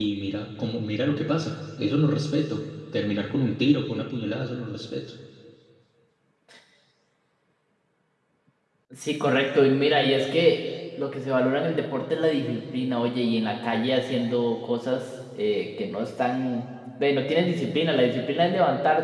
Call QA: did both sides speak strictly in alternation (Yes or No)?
Yes